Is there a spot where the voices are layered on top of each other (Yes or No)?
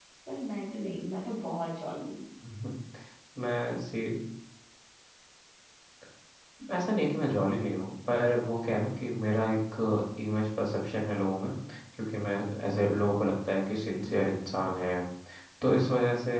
No